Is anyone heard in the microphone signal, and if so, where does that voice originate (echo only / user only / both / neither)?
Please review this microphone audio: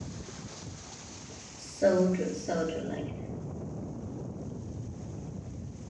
user only